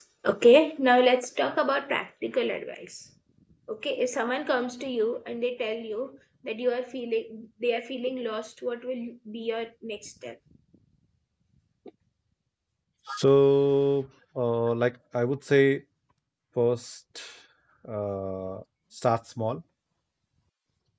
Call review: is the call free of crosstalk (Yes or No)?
Yes